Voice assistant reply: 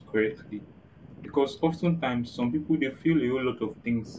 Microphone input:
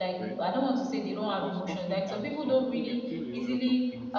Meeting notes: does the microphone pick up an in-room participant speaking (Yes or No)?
Yes